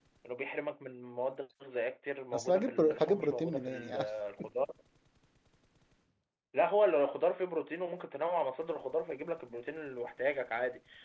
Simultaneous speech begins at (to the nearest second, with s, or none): 2 s